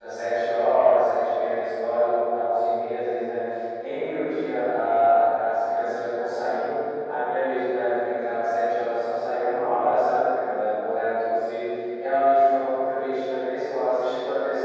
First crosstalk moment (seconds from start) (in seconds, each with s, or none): none